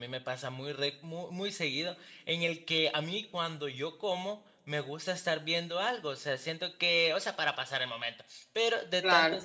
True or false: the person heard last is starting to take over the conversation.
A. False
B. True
A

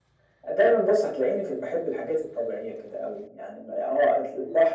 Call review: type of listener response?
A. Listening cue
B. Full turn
A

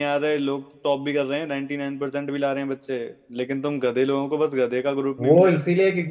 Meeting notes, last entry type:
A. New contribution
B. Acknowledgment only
A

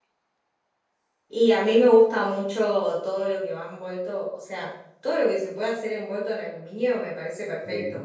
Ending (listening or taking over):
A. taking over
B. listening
B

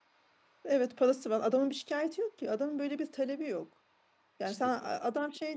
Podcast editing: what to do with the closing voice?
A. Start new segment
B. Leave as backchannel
B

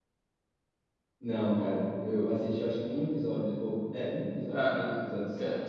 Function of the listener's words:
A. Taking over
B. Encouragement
A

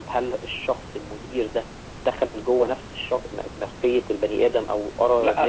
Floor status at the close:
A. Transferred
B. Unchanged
A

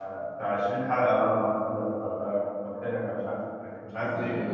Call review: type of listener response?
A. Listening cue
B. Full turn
B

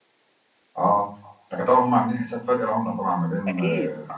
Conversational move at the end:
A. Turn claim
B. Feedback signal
A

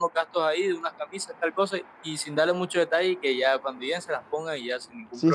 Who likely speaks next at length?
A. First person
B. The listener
B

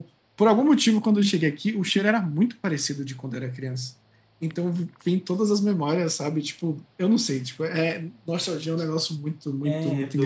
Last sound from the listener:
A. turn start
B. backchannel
A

